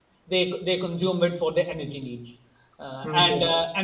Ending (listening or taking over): listening